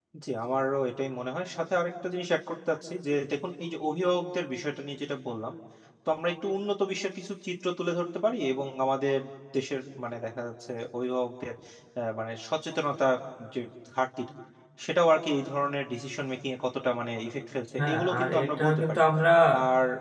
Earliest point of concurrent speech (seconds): 17.8 s

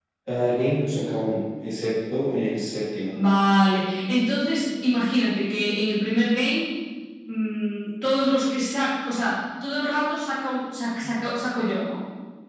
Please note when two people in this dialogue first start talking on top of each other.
none

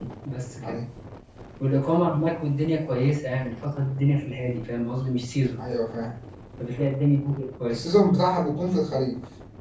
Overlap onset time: none

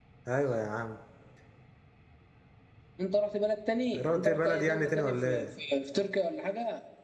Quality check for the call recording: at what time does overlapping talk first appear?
3.9 s

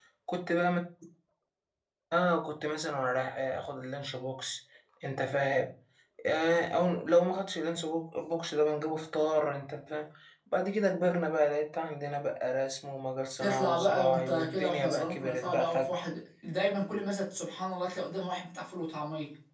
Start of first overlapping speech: 13.4 s

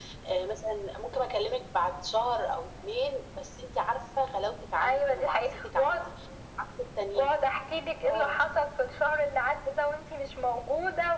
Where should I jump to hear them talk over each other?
4.8 s

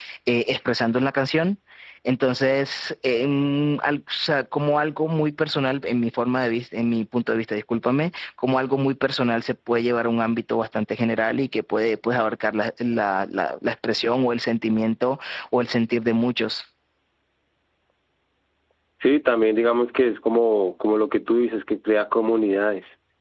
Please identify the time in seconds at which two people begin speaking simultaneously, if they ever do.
none

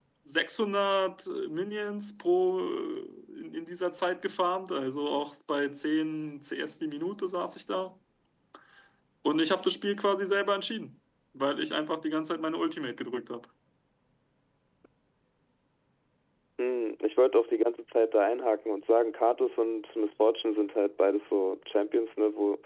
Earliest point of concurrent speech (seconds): none

